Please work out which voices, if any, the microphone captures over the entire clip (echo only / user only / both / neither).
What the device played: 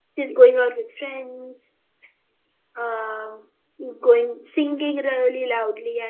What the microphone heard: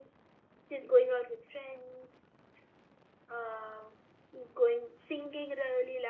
echo only